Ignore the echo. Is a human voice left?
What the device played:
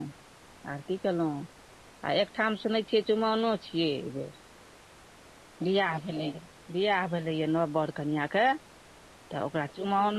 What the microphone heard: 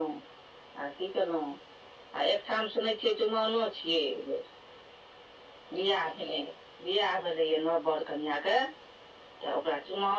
No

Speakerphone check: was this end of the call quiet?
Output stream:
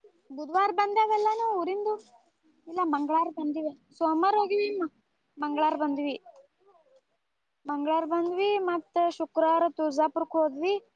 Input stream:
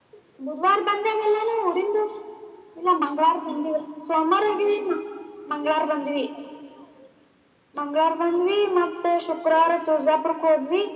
Yes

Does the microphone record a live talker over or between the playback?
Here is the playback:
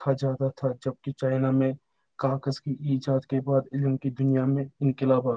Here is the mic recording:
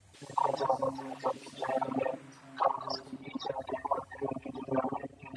Yes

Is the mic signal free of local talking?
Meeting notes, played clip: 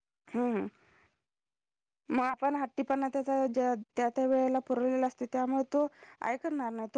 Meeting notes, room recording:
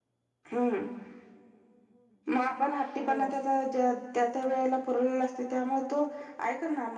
No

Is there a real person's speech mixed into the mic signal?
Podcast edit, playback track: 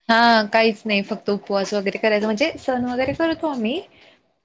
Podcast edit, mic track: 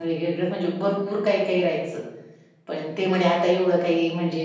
Yes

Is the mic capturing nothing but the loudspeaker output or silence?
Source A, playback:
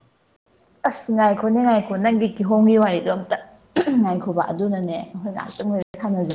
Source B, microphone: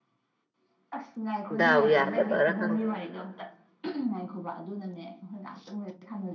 No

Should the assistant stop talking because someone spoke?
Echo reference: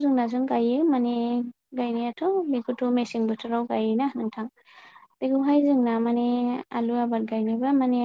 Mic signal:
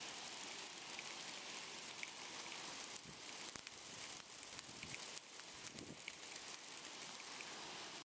No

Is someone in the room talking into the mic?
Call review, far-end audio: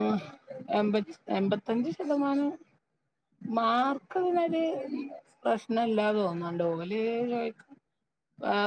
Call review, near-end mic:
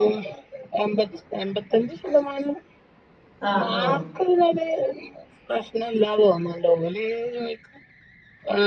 Yes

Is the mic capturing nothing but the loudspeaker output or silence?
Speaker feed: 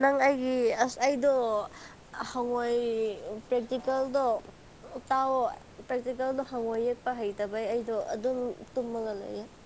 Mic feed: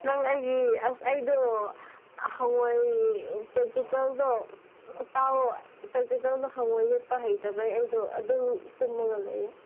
Yes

